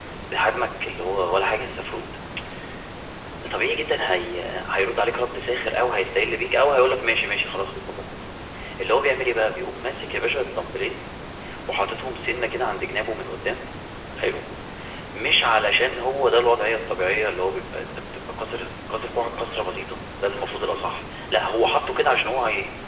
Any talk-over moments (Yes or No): No